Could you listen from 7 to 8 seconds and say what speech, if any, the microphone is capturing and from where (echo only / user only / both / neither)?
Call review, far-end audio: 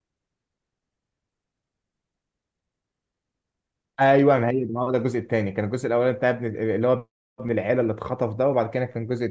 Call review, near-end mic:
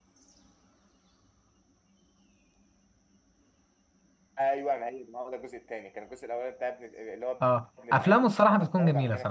both